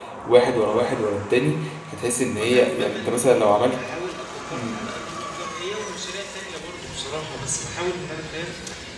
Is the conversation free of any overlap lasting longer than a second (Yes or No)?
No